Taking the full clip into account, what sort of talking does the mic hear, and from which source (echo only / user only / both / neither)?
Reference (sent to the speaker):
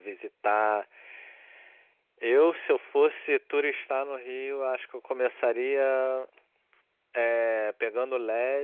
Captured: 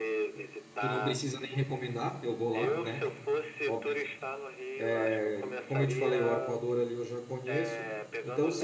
both